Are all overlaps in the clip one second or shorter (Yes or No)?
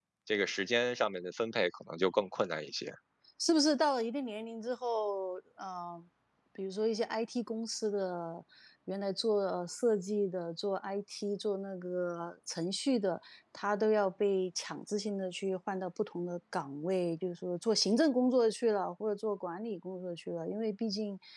Yes